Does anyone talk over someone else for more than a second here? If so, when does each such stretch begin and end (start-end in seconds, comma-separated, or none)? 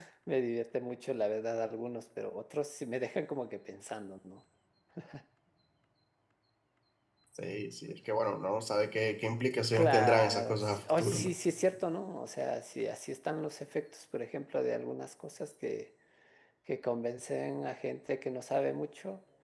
9.7-11.3